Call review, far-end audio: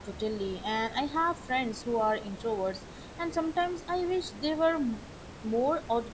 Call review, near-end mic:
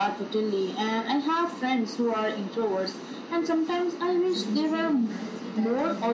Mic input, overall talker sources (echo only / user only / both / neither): both